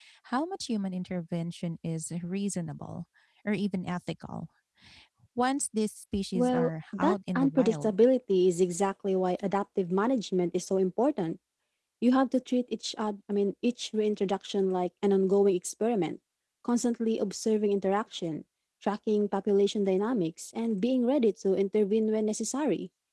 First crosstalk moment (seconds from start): 6.3 s

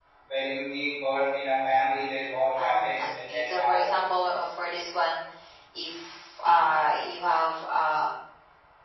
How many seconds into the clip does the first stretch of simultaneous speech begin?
2.6 s

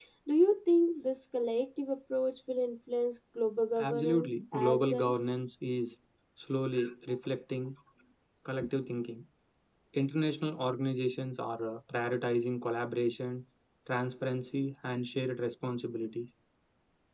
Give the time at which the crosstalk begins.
3.8 s

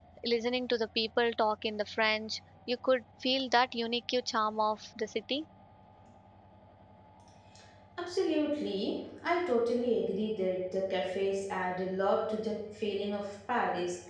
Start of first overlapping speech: none

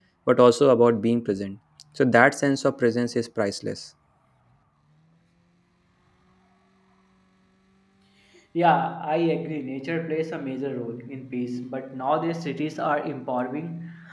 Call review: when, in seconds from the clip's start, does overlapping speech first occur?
none

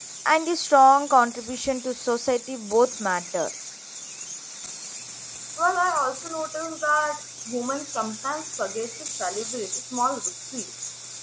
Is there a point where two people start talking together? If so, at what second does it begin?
none

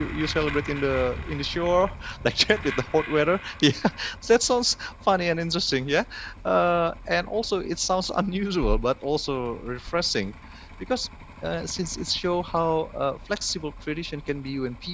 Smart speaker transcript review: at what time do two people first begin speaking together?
none

